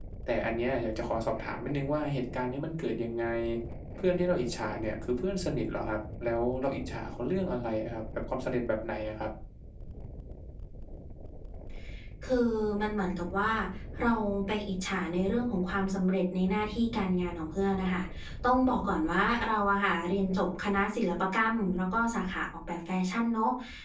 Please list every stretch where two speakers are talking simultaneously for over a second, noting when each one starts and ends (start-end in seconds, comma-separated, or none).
none